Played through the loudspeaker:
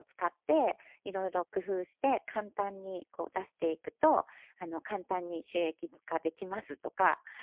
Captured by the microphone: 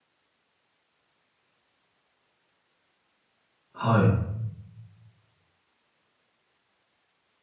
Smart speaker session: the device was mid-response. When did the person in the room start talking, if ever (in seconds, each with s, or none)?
3.7 s